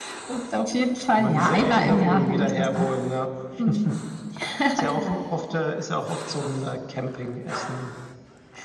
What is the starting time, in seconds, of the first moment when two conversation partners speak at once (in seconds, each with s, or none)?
1.2 s